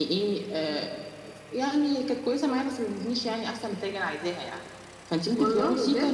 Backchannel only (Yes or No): Yes